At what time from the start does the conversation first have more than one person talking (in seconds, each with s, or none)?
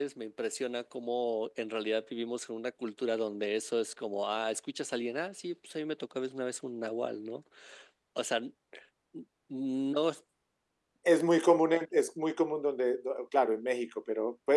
none